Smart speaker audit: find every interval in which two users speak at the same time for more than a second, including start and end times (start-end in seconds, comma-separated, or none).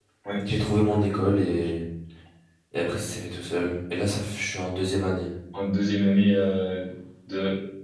none